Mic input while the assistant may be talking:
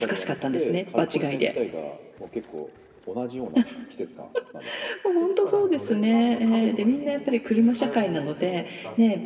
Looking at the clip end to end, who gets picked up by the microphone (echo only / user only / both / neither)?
both